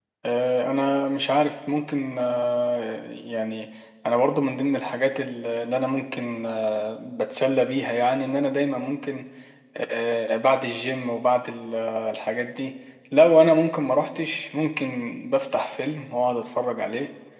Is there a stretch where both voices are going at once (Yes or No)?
No